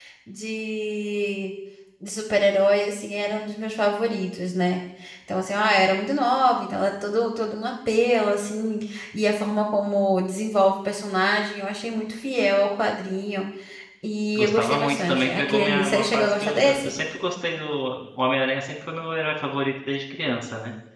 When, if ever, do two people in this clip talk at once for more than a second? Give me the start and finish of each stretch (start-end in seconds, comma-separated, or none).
14.4-16.9